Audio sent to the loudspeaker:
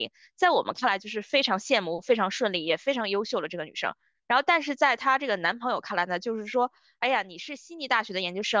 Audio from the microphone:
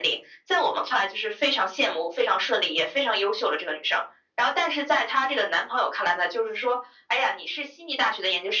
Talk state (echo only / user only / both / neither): echo only